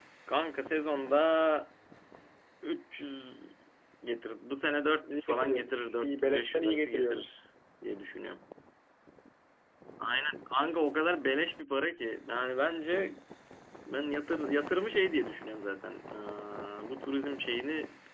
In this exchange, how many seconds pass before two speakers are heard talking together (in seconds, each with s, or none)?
5.0 s